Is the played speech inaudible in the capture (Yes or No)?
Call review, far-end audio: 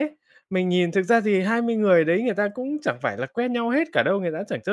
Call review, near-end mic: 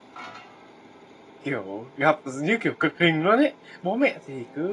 Yes